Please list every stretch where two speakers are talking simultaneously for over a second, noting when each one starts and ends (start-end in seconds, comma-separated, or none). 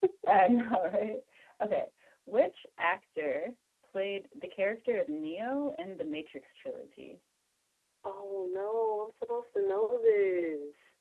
none